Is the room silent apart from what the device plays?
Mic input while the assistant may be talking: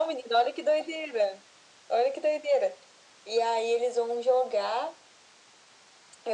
Yes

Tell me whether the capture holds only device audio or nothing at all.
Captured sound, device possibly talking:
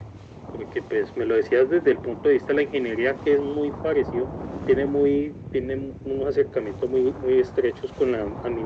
Yes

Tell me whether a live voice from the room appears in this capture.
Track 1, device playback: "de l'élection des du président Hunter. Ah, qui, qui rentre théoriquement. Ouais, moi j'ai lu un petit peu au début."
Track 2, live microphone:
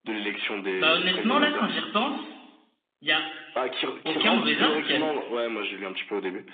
Yes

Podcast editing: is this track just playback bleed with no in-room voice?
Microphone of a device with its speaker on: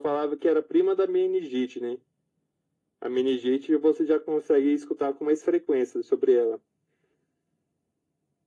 Yes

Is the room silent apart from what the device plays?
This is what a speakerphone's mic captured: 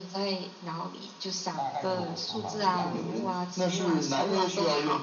No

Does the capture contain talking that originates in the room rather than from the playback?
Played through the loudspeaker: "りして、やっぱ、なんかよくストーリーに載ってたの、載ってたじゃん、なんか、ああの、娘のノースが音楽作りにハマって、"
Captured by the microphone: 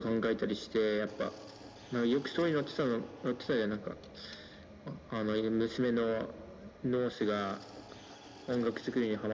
No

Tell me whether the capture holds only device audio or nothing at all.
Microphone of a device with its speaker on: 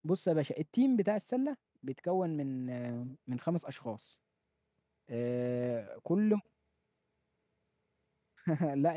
No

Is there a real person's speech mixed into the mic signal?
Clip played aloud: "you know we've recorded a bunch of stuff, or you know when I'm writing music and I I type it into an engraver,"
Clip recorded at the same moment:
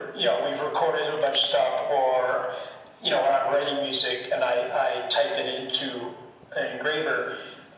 No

